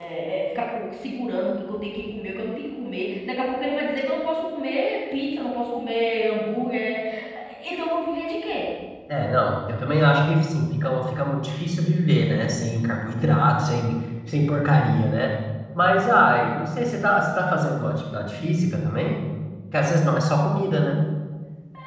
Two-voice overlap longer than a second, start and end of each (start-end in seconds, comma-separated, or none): none